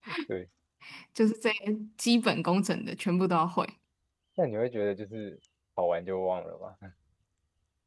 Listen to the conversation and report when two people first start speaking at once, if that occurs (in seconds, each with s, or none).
none